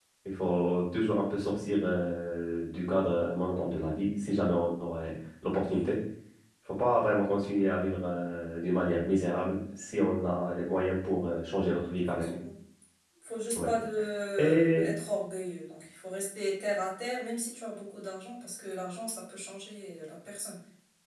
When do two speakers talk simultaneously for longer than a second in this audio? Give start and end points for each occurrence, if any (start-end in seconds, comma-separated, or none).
none